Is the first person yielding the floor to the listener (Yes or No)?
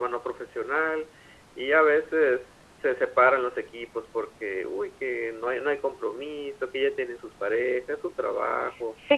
Yes